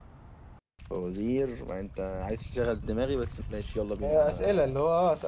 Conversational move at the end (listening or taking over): taking over